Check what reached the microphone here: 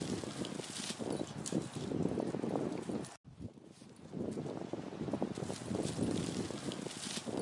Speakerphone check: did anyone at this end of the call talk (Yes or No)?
No